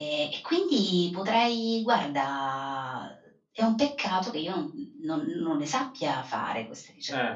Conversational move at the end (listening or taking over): taking over